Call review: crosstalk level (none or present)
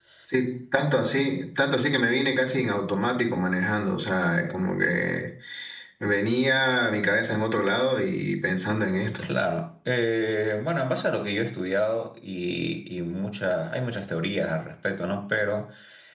none